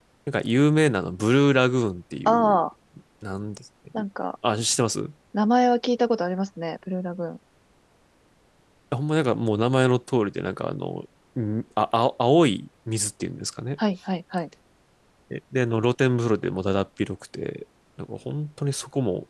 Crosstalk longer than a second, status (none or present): none